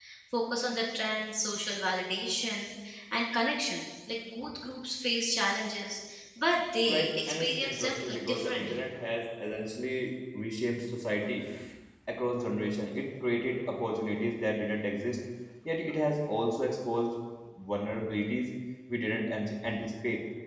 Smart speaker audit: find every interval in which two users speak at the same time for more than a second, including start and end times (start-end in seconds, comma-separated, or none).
6.9-8.9